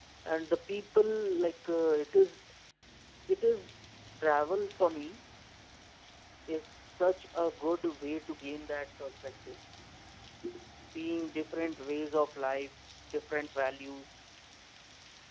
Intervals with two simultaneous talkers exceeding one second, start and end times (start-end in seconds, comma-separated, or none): none